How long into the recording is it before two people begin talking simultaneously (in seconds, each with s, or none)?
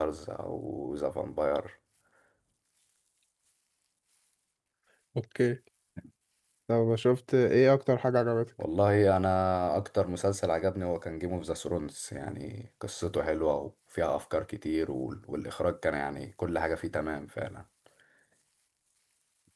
none